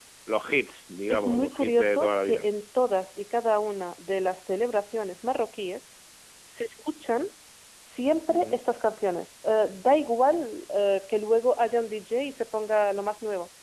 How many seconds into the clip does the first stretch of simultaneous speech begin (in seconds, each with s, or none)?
1.1 s